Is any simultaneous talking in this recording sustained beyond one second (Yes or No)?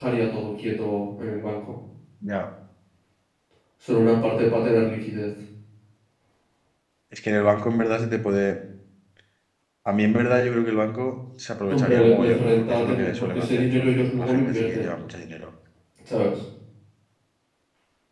Yes